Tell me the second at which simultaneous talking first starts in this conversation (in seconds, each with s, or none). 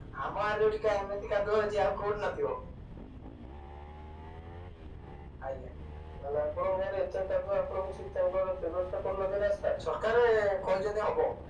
none